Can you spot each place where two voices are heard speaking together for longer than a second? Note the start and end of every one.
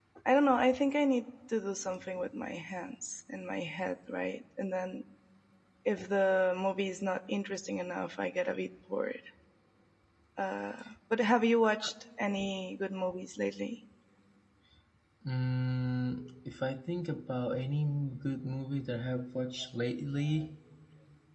none

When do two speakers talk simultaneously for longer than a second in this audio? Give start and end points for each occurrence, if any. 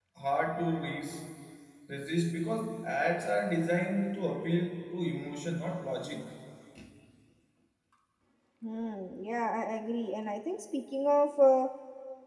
none

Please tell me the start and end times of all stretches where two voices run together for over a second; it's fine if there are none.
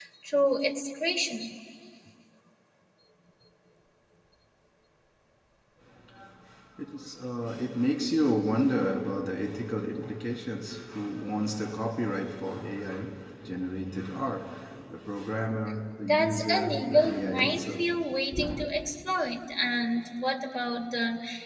16.0-17.8

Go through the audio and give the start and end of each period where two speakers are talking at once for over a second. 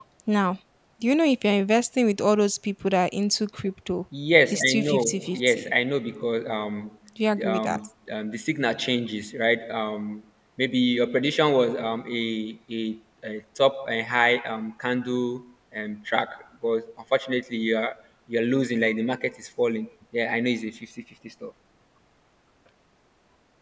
4.5-5.7

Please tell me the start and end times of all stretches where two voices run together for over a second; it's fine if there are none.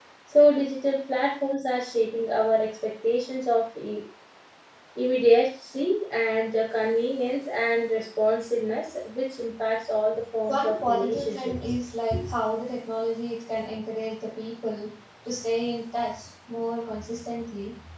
10.5-11.8

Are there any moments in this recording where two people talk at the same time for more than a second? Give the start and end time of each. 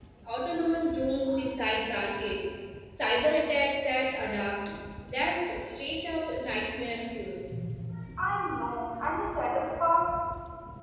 none

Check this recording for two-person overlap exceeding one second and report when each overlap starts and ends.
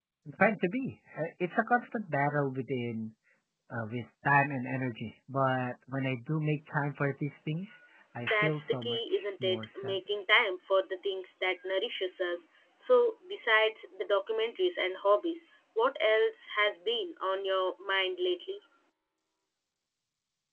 8.2-10.0

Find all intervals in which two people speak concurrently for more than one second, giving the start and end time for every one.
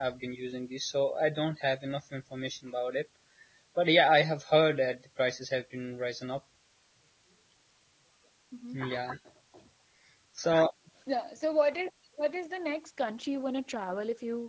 none

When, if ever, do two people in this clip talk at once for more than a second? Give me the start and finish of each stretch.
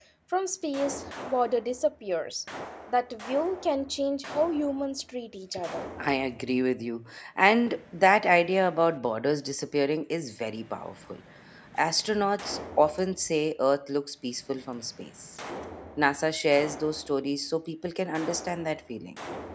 none

